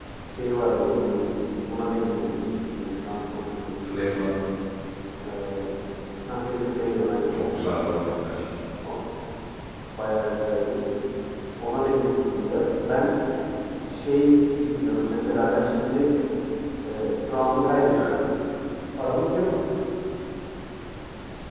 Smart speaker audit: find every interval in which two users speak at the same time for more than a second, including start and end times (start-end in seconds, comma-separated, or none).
none